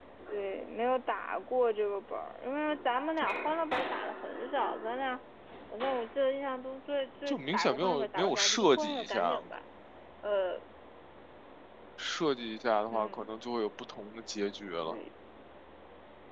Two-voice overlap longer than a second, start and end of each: 7.3-9.4

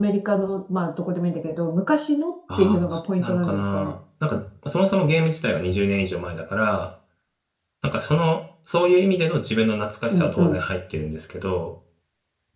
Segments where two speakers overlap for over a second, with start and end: 2.6-3.9

